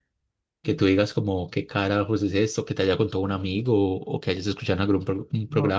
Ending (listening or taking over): taking over